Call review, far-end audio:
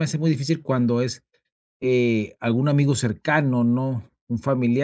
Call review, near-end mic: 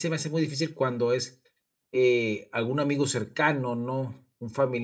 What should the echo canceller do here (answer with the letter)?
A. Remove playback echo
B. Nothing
A